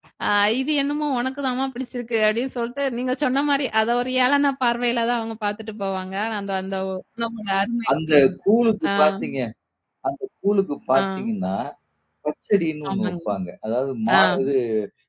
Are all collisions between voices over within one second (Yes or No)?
Yes